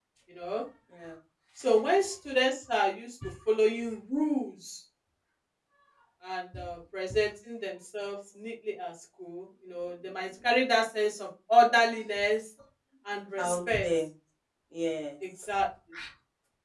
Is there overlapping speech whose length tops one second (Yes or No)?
No